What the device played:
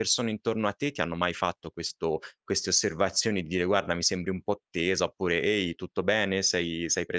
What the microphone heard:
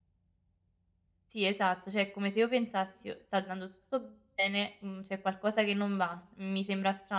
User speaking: Yes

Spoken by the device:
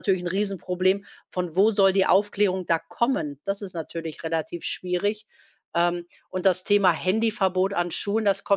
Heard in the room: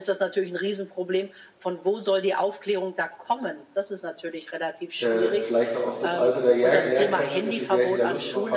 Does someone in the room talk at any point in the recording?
Yes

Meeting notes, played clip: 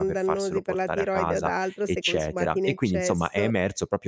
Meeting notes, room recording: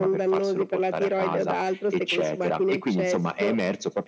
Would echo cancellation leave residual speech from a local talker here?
No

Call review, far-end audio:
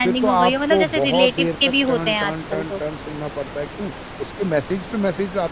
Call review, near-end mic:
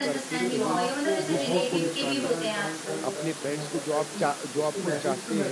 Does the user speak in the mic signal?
Yes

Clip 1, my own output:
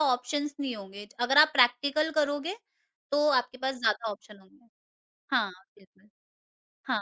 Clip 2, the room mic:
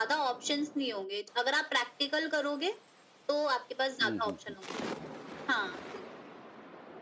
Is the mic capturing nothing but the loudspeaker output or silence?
No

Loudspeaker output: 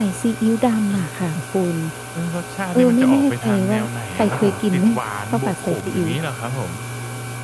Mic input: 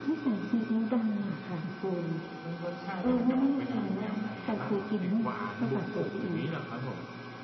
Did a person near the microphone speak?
No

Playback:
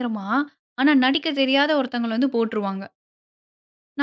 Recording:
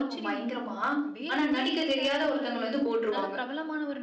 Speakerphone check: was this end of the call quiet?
No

